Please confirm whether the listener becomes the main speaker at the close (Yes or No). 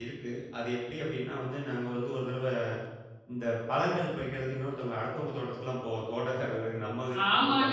Yes